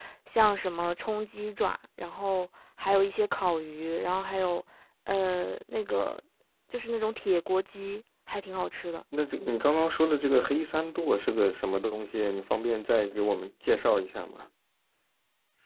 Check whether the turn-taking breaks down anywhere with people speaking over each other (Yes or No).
No